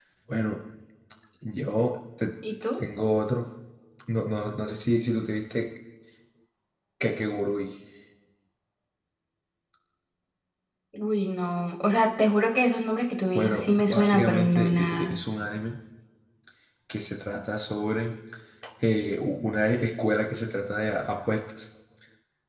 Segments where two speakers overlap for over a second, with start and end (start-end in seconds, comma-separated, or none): 13.3-15.1